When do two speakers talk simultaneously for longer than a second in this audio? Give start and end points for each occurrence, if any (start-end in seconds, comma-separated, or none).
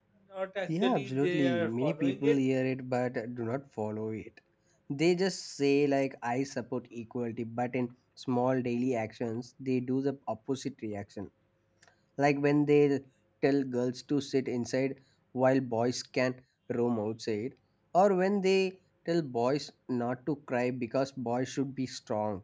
0.7-2.4